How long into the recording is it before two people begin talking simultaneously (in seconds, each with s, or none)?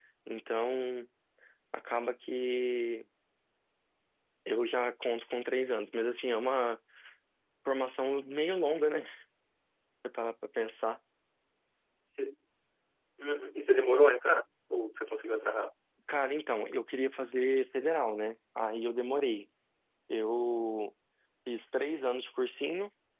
none